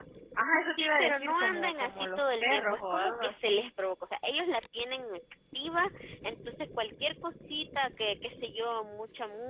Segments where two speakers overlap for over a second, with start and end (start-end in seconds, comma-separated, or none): 0.8-3.7